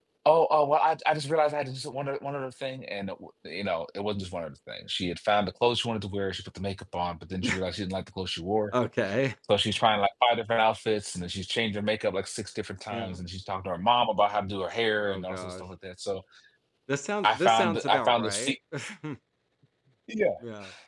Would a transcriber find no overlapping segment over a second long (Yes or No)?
No